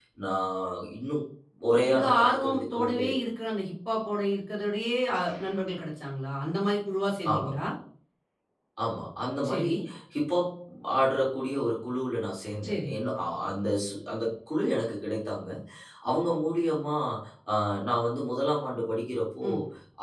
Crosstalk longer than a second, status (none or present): present